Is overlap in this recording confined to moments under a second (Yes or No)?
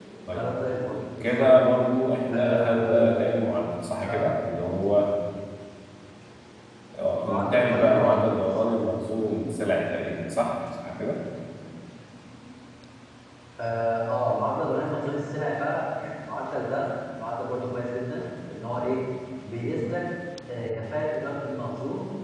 No